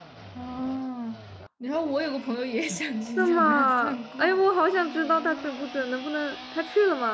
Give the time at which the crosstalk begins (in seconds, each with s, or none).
3.2 s